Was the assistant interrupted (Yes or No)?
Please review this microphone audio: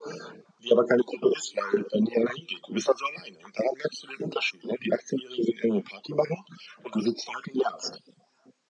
No